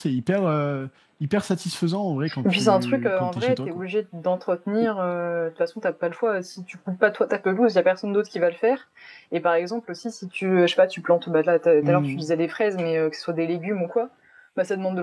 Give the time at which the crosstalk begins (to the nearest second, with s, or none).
2 s